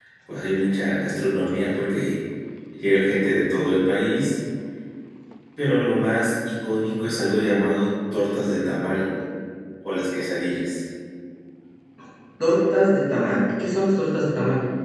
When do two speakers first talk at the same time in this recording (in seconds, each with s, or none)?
none